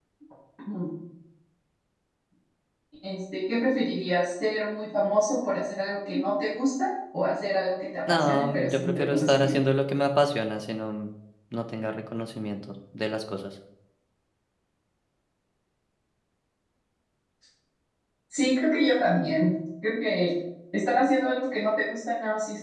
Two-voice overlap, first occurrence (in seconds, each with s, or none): 8.1 s